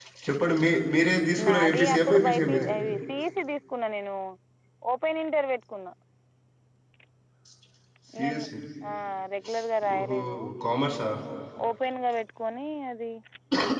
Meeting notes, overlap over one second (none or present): present